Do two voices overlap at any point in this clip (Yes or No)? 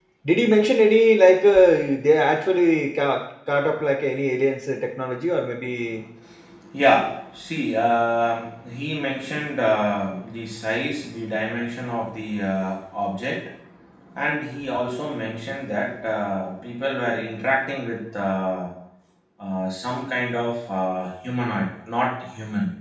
No